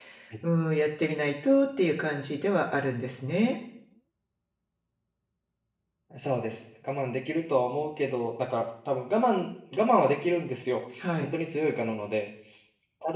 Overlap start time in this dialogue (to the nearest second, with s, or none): none